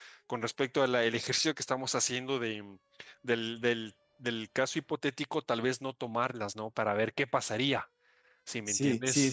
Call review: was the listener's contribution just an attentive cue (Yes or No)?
No